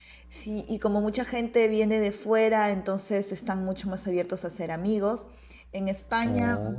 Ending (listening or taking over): listening